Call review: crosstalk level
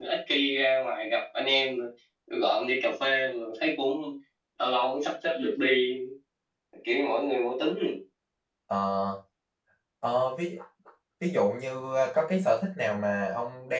none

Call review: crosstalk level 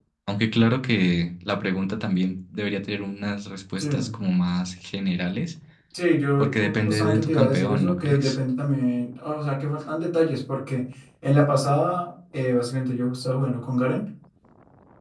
present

